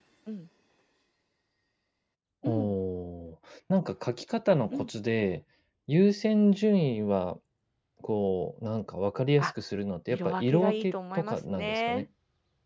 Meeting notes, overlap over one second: present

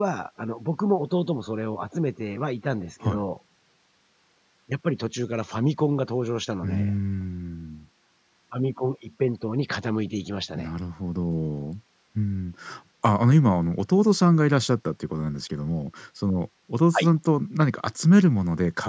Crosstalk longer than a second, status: none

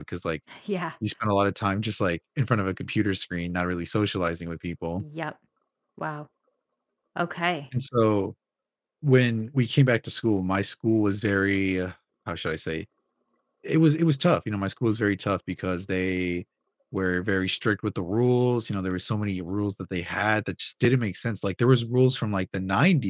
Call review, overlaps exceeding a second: none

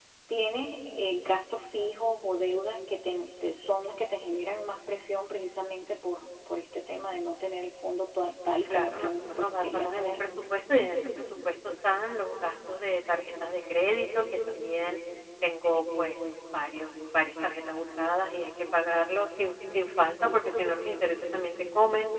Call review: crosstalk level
present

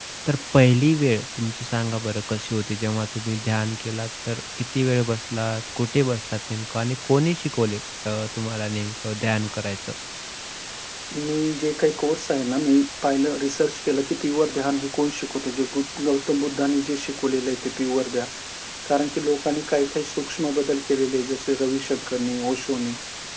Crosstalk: none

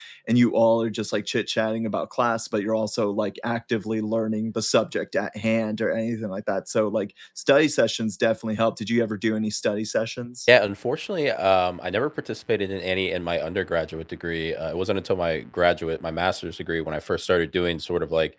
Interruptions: none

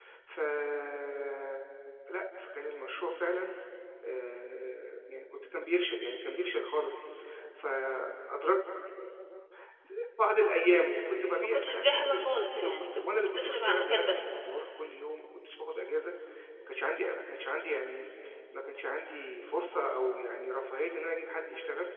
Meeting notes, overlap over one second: present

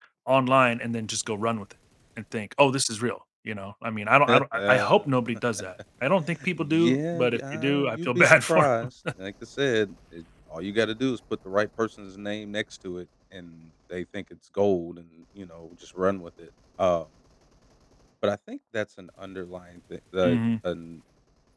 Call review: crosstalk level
present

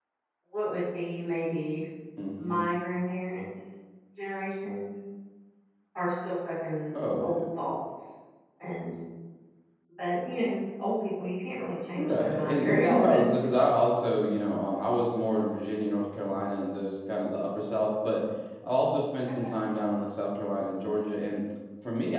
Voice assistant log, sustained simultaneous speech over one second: present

